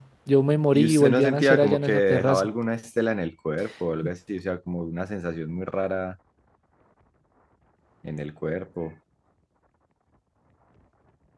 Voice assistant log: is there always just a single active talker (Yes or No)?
No